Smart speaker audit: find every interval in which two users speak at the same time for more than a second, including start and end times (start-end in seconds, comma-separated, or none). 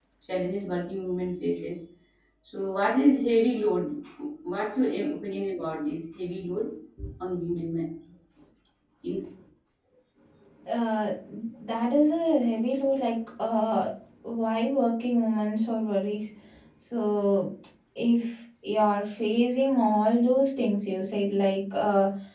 none